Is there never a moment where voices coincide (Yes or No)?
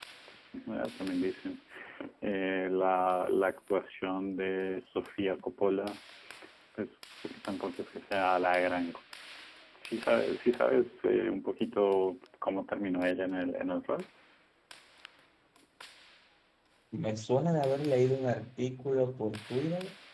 Yes